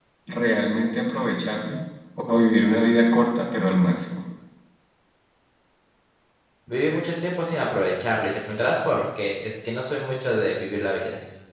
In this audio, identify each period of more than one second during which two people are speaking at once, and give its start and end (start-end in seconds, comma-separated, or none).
none